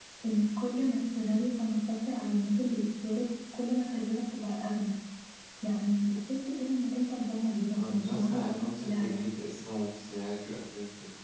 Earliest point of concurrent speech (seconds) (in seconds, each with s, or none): 7.7 s